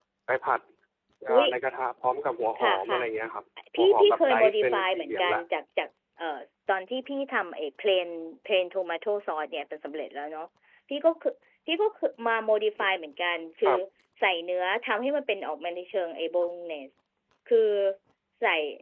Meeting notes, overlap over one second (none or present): present